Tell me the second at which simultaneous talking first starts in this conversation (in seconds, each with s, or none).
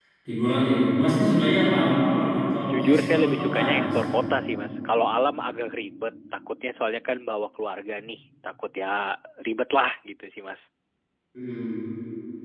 2.7 s